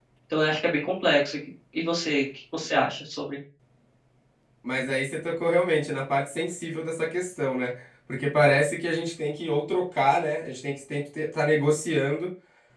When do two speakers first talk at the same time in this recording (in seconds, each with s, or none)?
none